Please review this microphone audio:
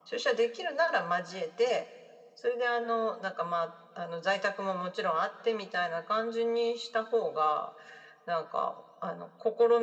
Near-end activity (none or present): none